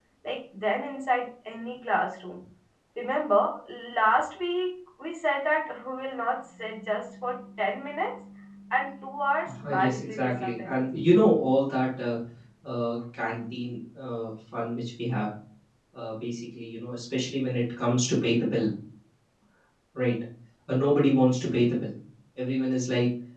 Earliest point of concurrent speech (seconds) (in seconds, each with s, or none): 9.5 s